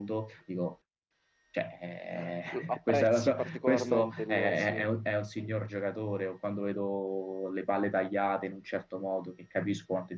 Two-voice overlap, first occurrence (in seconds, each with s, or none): 2.6 s